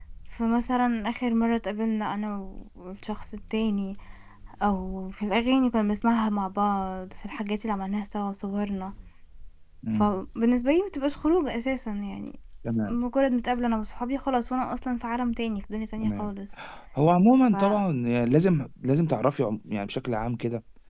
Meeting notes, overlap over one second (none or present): none